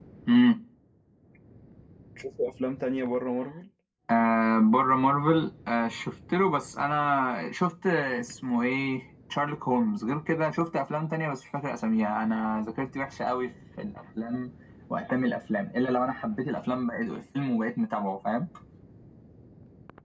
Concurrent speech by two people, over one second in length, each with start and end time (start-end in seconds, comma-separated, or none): none